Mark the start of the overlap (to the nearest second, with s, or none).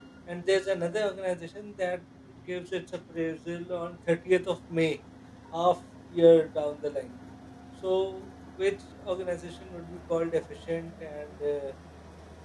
none